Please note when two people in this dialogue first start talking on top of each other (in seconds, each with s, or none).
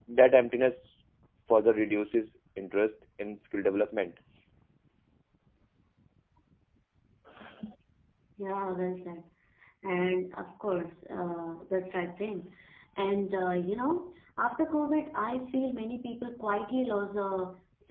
none